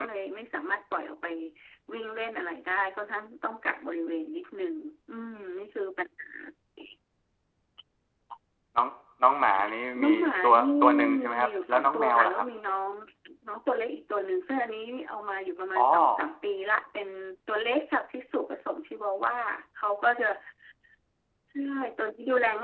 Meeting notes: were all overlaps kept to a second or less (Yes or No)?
No